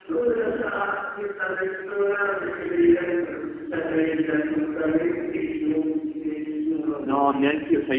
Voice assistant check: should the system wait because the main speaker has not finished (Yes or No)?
No